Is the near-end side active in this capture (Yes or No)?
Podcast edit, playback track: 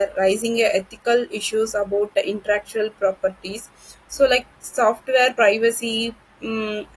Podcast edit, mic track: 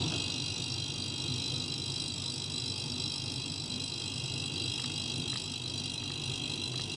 No